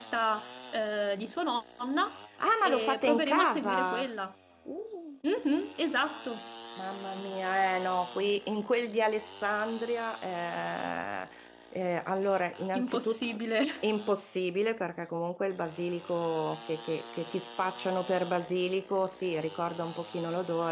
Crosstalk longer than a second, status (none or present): present